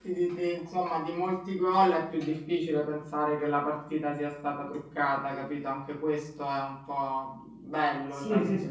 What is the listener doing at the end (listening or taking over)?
taking over